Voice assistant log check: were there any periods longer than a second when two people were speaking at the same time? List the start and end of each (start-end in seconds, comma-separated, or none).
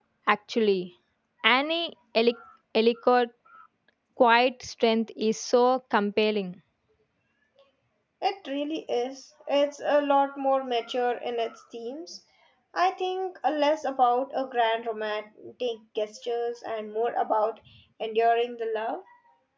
none